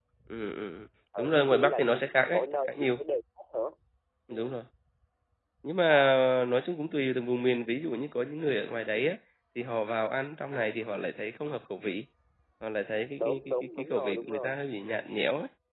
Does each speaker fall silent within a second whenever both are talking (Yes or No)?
No